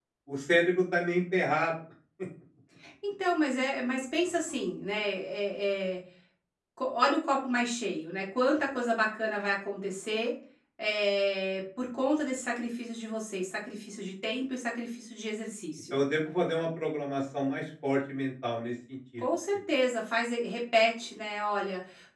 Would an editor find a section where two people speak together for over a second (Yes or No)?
No